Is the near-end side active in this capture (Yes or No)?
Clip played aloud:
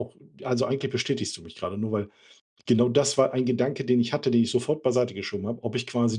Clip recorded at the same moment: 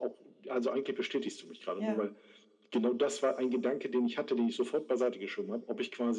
Yes